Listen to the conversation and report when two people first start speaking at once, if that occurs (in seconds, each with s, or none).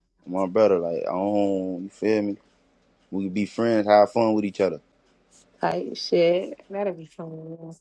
none